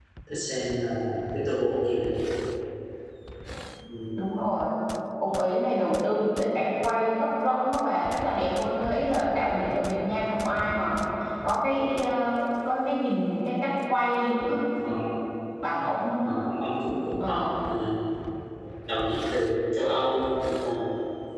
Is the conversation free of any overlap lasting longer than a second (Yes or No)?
Yes